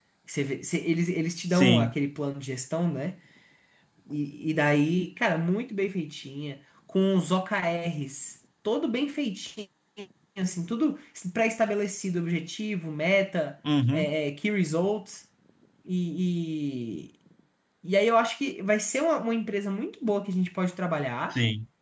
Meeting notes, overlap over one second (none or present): none